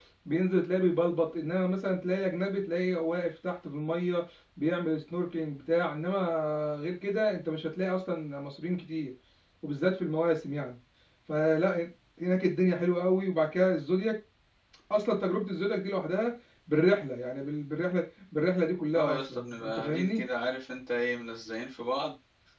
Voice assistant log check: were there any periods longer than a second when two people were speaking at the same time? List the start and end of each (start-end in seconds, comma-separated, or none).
18.9-20.2